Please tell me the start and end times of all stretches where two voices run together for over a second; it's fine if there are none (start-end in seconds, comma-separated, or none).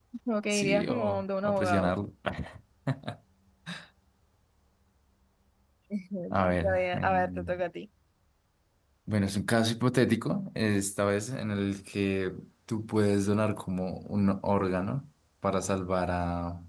0.5-1.9, 6.3-7.5